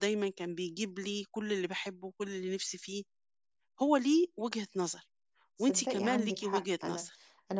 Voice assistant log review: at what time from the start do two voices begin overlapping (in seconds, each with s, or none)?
5.6 s